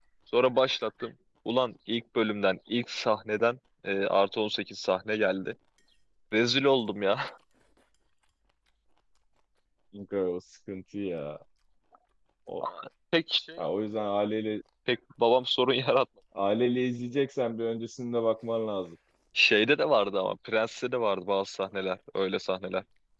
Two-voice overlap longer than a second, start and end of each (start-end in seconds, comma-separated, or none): none